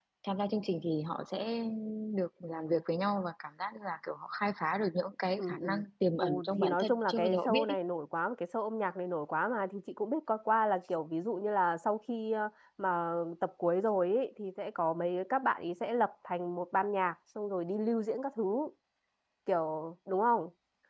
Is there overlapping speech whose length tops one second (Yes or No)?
Yes